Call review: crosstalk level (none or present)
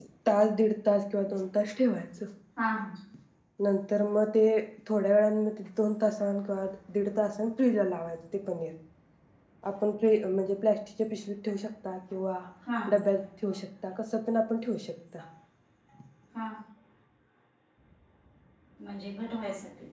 none